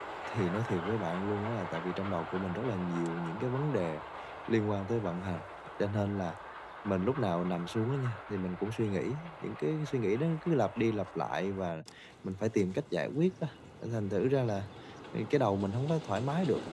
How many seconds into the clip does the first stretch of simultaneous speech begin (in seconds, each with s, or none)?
none